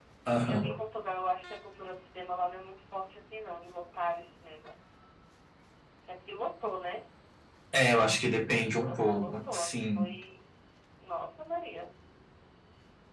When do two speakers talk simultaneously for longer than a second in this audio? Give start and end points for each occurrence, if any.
8.8-10.1

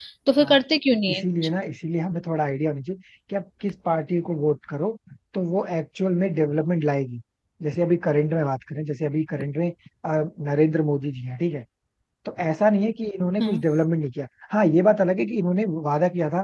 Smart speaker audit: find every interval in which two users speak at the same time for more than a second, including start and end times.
none

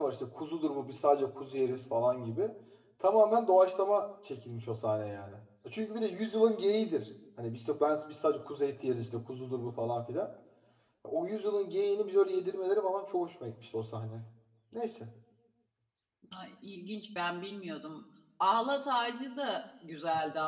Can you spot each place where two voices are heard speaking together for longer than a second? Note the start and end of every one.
none

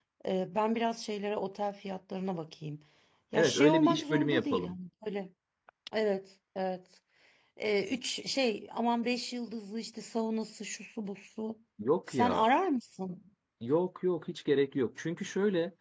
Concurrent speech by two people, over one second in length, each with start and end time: 3.3-4.7

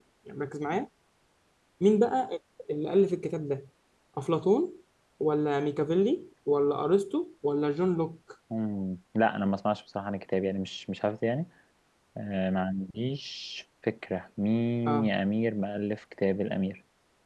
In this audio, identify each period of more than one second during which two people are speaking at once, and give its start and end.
none

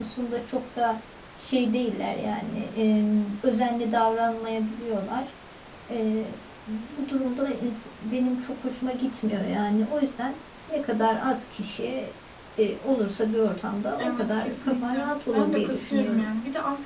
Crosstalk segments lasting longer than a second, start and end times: 14.0-16.3

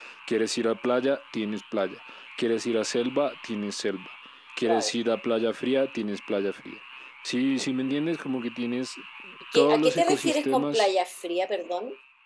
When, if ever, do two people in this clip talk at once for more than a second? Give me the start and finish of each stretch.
9.5-10.9

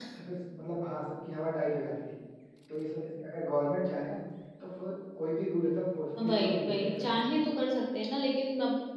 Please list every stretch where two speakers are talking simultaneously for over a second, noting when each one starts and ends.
6.2-7.4

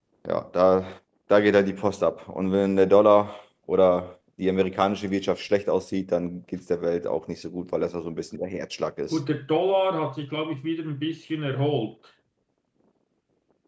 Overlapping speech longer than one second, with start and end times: none

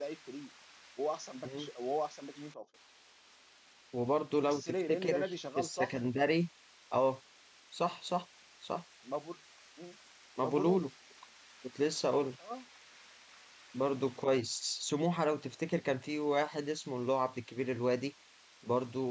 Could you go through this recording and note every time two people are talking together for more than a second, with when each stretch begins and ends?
4.4-6.0

